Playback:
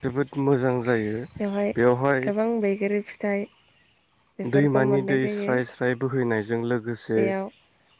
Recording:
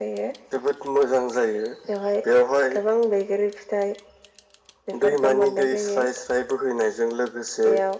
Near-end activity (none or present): none